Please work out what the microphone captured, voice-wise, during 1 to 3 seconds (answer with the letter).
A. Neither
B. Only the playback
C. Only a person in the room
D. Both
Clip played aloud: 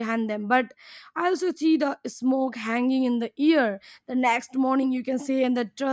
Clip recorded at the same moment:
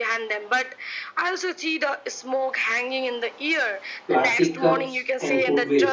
B